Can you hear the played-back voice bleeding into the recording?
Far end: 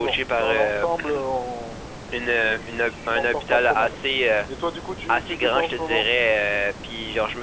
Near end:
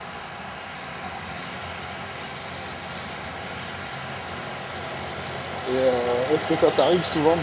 No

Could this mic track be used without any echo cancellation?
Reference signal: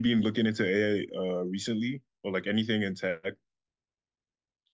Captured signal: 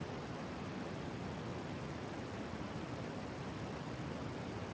Yes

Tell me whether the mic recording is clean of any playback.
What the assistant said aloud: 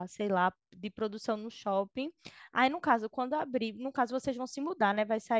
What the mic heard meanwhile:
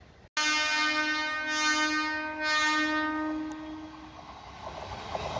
Yes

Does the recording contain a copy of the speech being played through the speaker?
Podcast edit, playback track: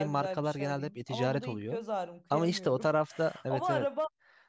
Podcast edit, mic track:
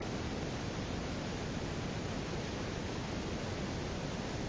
No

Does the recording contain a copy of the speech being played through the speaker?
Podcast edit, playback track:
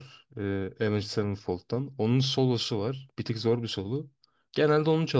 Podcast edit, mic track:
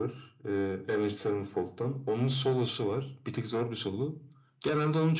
Yes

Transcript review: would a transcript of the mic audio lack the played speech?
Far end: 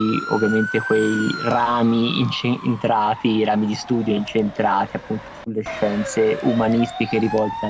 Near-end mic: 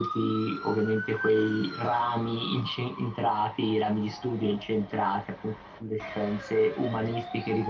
No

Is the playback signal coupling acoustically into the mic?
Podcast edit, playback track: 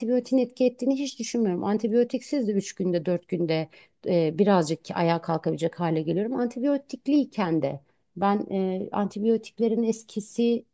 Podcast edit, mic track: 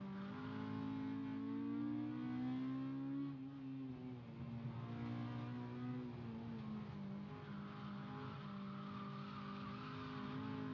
No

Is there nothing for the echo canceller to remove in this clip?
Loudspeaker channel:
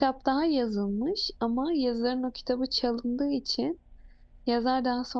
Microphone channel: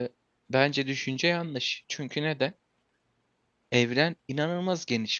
Yes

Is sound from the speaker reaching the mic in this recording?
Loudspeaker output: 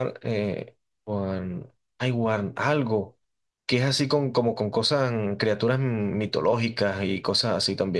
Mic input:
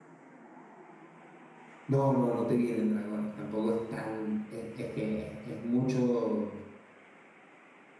No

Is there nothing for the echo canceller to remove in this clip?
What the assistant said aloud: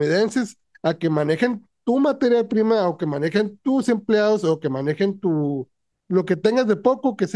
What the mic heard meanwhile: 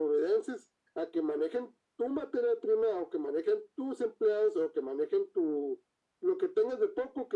No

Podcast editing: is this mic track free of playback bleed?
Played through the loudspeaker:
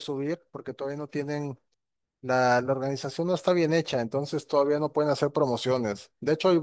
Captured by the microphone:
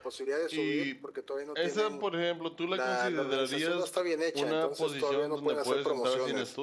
No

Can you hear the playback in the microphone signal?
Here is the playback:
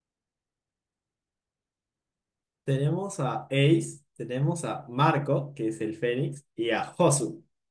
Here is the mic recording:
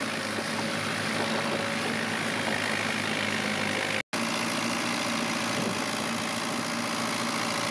No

